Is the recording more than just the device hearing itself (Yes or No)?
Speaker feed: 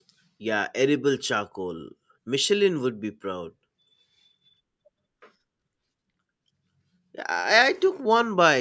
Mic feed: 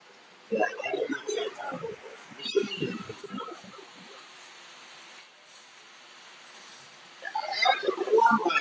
No